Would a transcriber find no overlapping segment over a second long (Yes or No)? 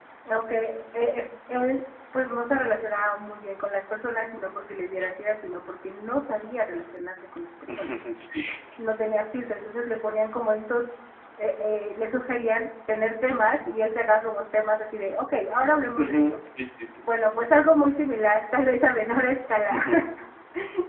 Yes